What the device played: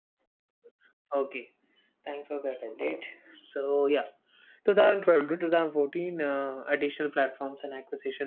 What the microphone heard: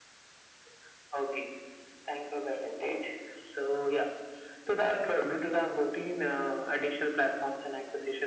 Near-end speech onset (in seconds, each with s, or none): none